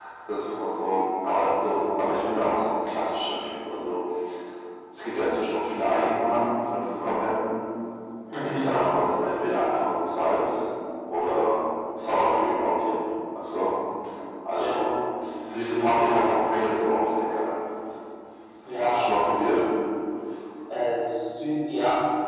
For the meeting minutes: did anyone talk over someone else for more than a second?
No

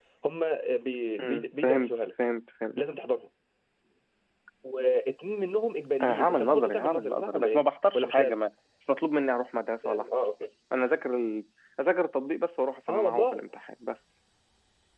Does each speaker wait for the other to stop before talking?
No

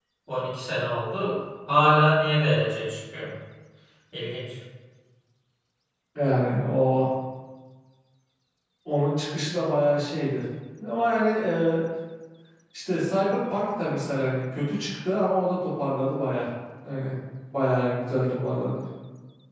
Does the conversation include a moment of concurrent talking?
No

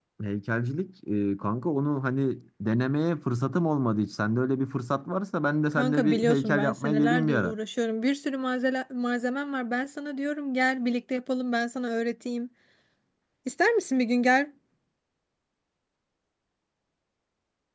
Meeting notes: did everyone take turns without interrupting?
No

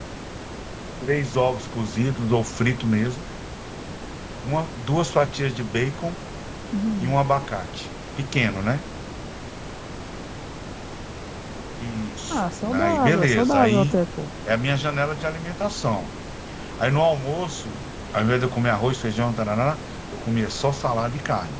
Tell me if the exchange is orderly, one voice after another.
No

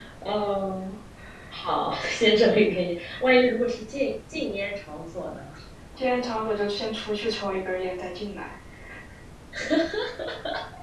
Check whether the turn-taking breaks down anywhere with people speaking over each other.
No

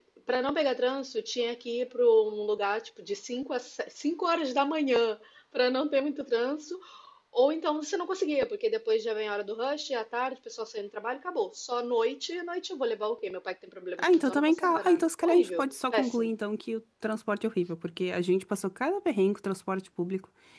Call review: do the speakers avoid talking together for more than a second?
No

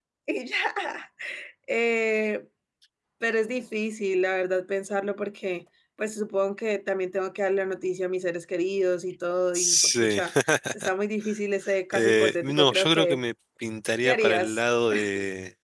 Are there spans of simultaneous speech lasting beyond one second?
Yes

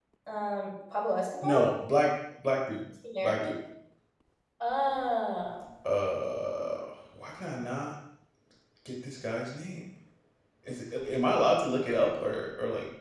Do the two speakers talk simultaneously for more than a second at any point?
No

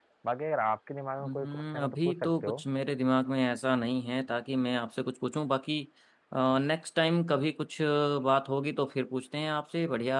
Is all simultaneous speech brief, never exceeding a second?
No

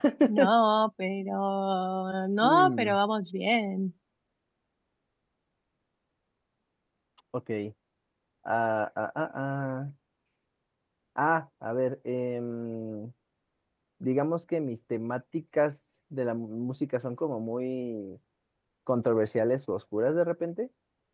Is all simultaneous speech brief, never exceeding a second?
Yes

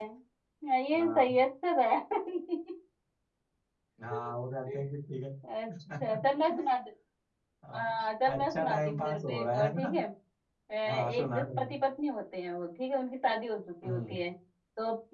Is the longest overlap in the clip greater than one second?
Yes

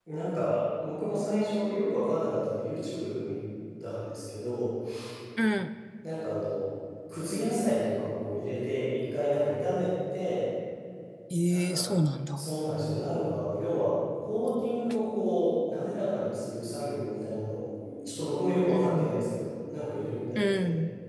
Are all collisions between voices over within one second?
Yes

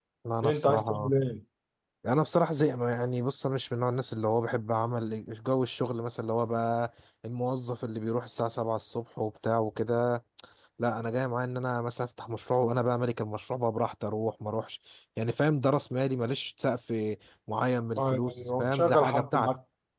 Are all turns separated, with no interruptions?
No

